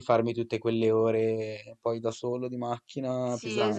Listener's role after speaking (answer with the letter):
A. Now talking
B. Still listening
A